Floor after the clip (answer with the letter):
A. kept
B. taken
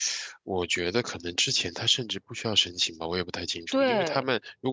A